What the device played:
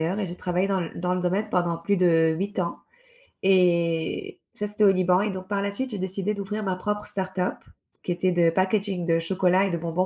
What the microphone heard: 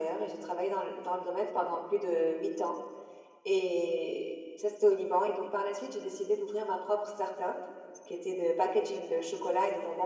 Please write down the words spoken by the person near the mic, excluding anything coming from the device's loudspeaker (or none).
none